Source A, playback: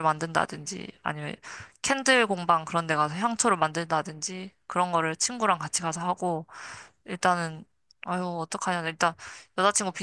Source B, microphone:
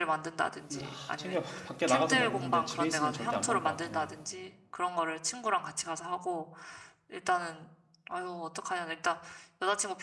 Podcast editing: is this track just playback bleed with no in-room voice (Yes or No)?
No